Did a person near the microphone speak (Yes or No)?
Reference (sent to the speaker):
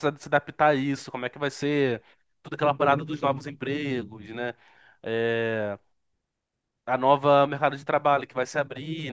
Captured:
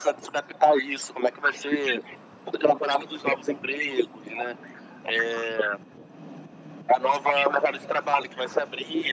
No